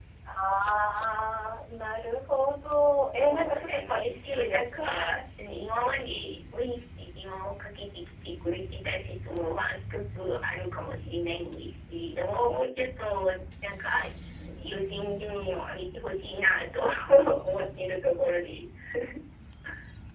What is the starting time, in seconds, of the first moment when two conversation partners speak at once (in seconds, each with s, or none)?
3.2 s